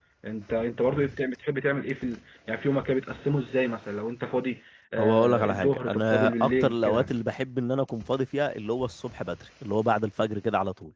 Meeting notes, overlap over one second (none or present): present